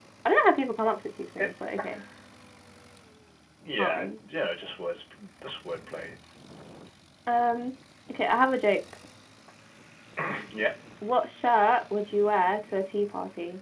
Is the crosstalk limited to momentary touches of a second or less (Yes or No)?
Yes